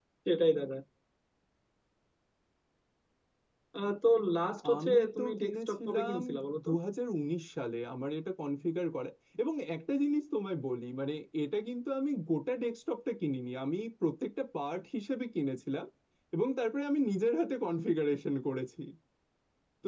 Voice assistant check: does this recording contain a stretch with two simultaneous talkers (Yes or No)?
Yes